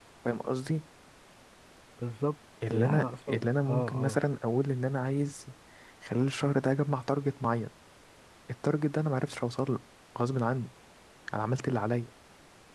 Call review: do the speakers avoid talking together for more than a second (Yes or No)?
No